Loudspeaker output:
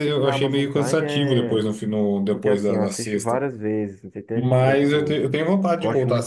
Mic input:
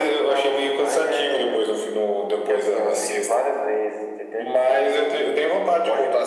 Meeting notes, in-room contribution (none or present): none